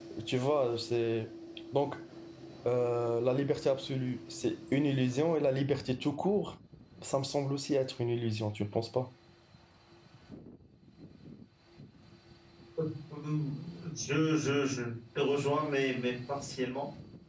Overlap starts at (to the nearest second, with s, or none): none